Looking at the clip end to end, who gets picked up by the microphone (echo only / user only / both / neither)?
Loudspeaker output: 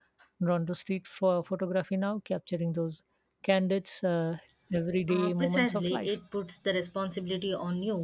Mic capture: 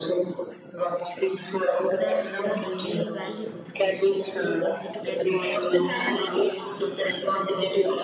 both